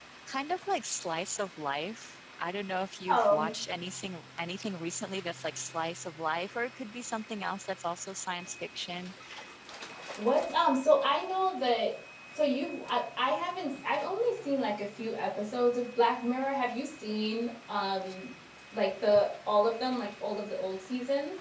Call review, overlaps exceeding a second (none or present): none